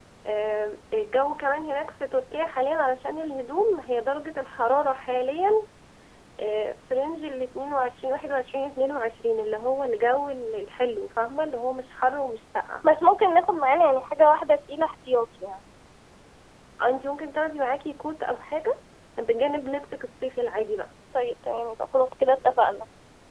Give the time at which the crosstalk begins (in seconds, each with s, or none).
none